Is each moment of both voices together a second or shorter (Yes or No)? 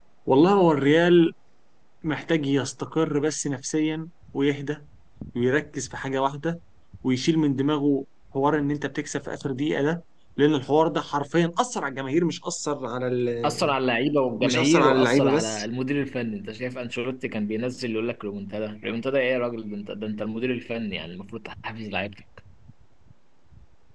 No